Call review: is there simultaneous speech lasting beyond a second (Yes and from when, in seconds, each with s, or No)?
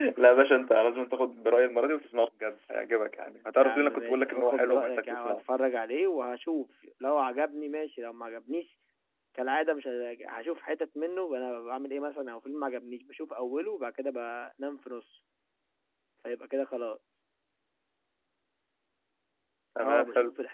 Yes, from 3.6 s